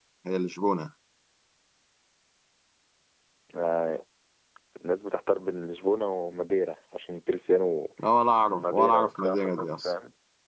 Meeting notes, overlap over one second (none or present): present